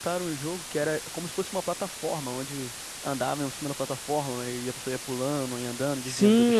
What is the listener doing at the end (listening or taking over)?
taking over